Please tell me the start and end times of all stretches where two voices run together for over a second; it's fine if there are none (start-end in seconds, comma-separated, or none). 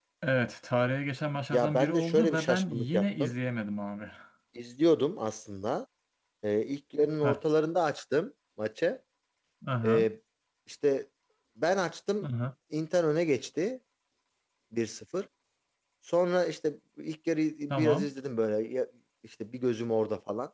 1.5-3.3